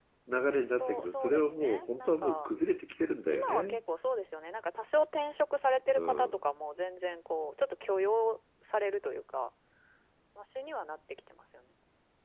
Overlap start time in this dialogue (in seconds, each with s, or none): 0.7 s